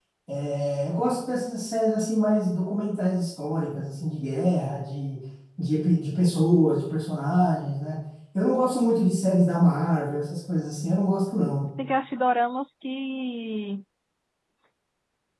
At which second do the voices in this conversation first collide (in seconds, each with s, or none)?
none